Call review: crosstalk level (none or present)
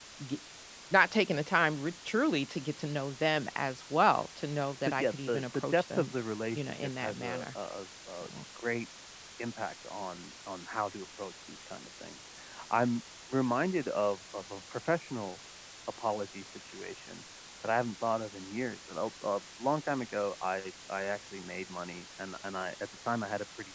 present